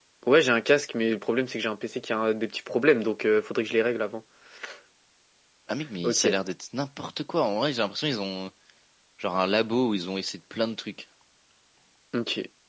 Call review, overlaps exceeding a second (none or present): none